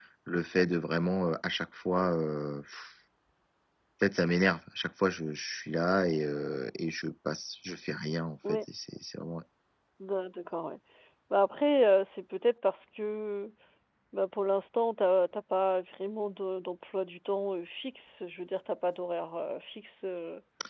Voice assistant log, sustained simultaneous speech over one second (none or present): none